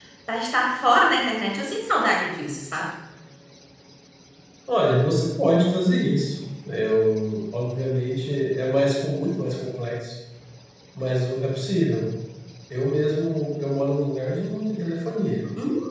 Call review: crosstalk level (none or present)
none